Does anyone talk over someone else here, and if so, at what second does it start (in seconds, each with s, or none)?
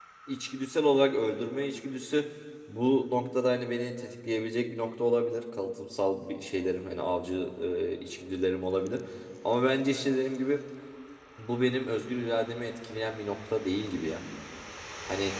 none